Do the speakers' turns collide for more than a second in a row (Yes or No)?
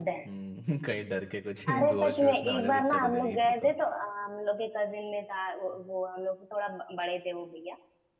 Yes